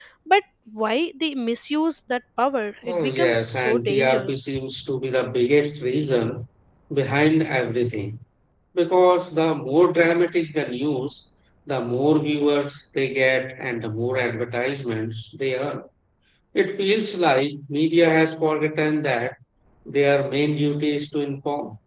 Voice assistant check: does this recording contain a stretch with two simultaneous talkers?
Yes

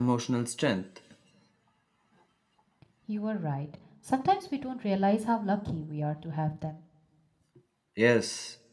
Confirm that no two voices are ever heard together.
Yes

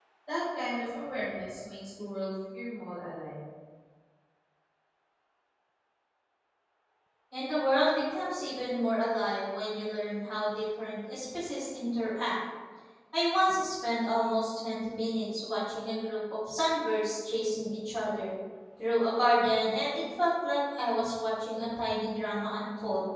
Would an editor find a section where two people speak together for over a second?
No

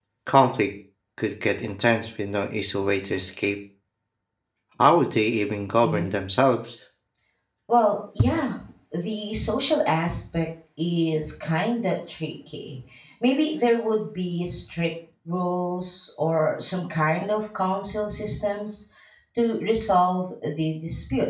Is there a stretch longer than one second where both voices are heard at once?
No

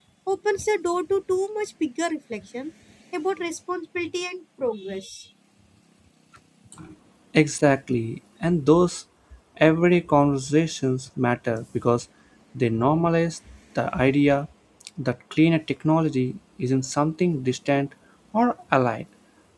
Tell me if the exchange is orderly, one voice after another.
Yes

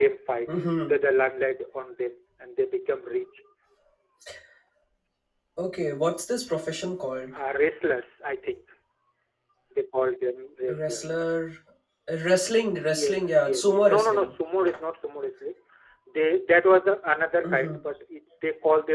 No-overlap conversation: No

